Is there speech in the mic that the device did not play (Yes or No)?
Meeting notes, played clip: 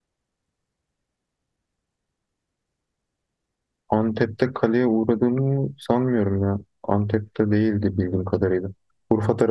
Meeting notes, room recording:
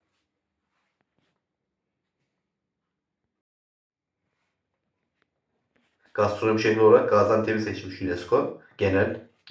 Yes